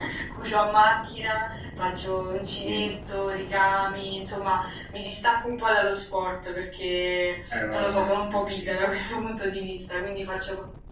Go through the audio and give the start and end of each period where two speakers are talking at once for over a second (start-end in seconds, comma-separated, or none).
7.5-8.7